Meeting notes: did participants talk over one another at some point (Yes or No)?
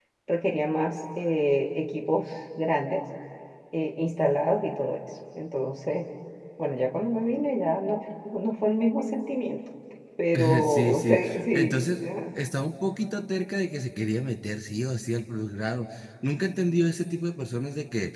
Yes